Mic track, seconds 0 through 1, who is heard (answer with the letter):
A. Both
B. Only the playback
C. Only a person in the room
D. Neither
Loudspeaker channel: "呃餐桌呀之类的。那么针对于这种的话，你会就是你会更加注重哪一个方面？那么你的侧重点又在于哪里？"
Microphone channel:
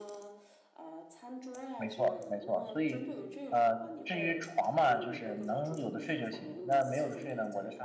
B